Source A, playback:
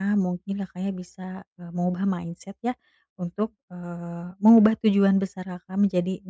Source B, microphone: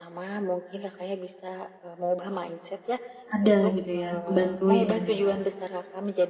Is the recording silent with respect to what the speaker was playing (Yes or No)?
No